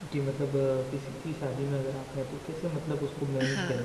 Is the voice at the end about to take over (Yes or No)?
Yes